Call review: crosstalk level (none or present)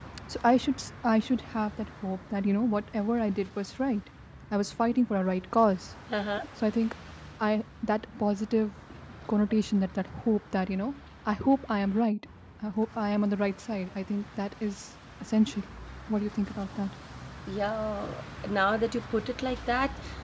none